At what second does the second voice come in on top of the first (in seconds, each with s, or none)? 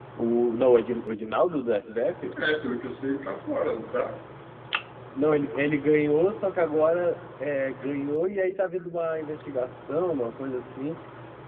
none